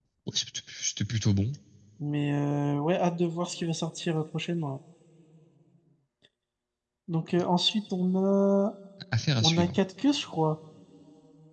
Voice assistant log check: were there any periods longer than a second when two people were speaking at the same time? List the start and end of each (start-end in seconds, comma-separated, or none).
none